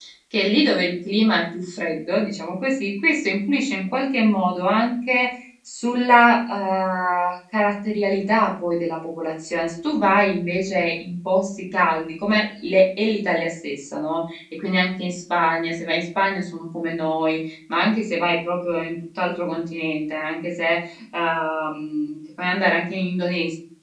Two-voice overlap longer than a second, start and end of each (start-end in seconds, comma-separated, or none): none